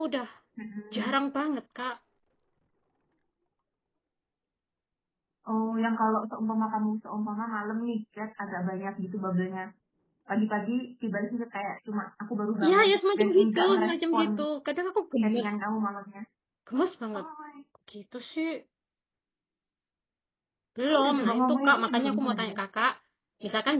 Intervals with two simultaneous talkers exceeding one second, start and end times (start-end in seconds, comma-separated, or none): 12.6-14.3, 20.9-22.6